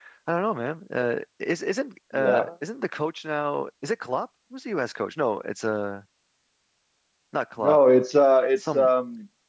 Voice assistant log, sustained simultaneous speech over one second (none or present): none